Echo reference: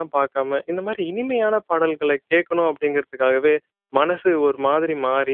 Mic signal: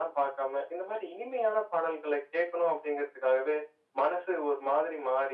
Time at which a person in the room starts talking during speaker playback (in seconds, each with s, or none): none